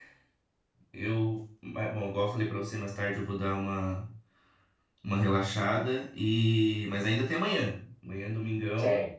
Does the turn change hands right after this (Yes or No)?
No